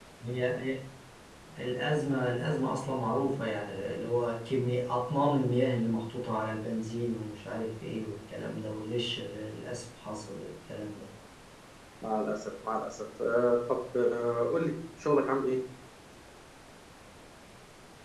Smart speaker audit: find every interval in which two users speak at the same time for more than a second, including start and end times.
none

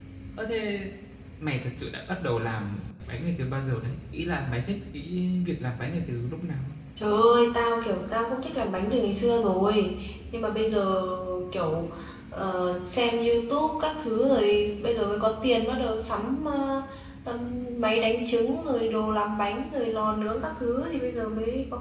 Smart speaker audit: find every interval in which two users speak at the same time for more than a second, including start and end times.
none

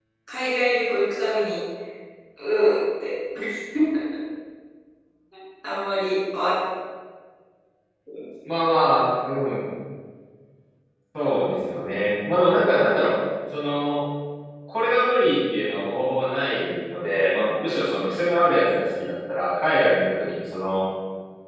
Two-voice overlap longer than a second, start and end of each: none

